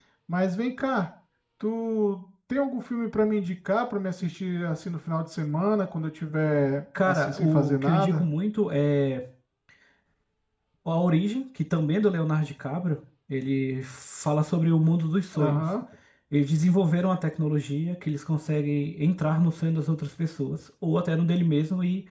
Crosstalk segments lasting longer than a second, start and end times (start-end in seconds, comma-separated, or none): 7.1-8.3